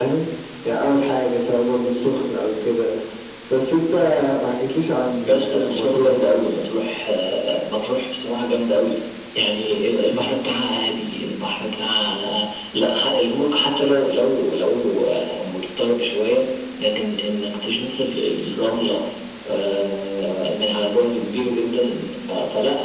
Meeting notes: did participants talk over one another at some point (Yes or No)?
Yes